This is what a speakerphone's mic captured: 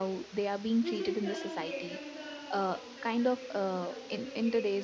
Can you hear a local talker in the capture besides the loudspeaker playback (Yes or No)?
Yes